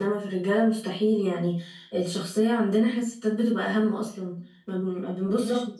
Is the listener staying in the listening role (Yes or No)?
Yes